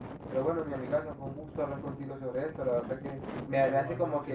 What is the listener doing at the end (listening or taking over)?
listening